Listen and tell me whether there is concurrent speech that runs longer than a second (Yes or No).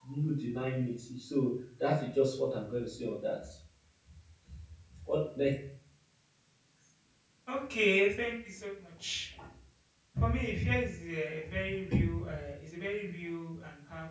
No